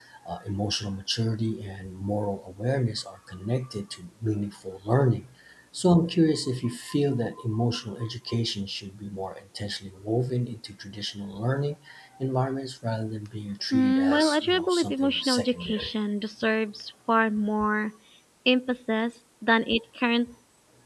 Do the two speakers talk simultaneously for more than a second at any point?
Yes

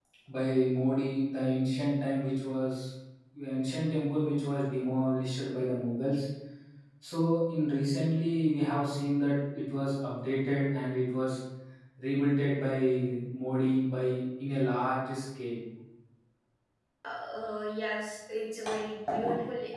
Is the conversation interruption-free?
Yes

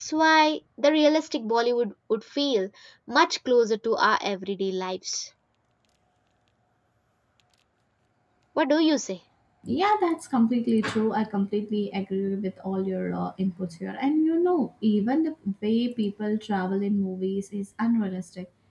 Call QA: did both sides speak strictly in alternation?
Yes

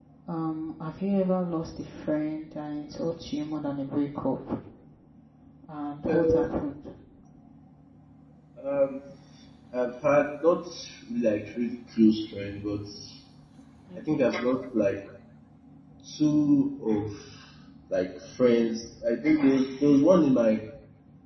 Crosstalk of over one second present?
No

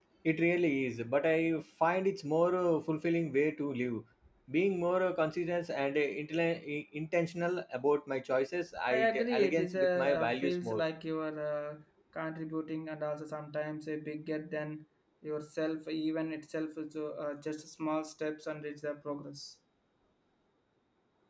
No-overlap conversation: No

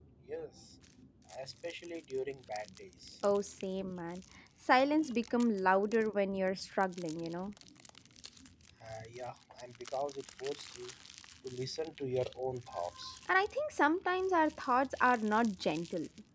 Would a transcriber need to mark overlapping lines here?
No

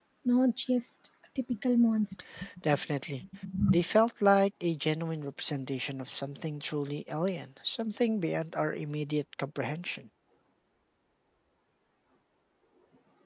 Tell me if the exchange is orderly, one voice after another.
Yes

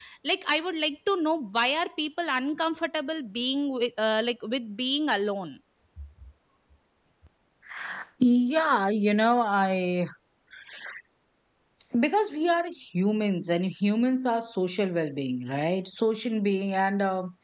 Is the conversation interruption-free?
Yes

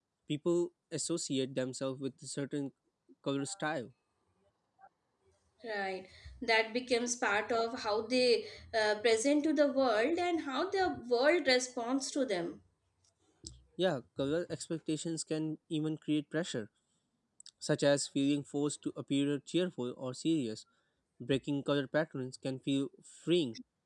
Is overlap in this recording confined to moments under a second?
Yes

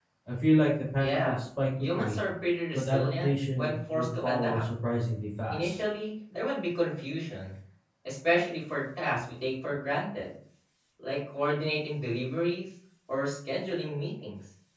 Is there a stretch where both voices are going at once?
Yes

